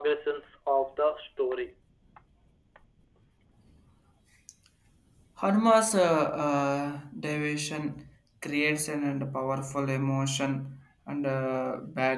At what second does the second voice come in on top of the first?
none

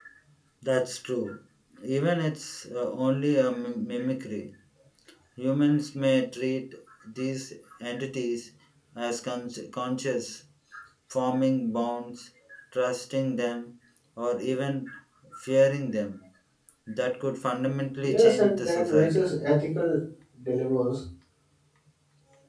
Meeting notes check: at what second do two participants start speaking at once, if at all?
18.0 s

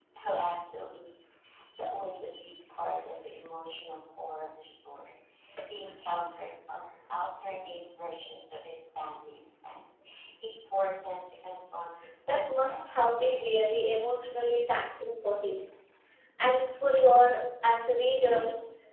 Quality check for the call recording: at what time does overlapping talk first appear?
12.3 s

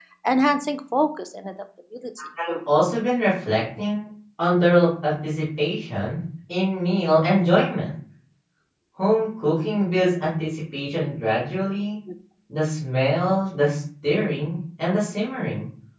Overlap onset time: none

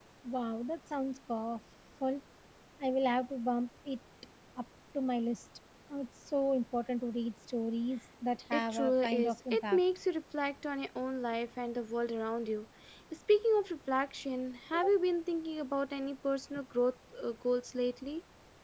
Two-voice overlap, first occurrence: 8.5 s

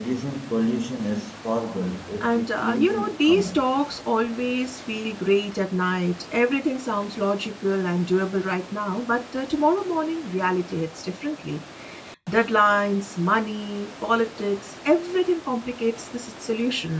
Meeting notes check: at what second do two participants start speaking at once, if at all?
2.2 s

